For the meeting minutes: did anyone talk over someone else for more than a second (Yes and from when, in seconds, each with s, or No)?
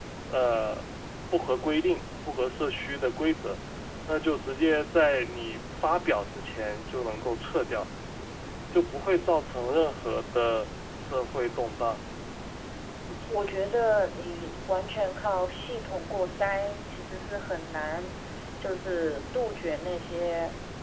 No